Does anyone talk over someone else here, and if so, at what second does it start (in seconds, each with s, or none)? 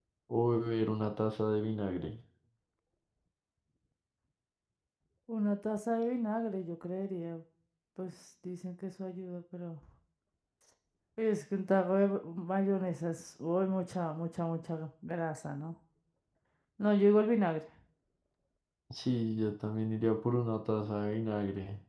none